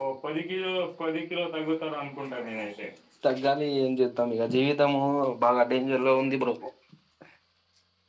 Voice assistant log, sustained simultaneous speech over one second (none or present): none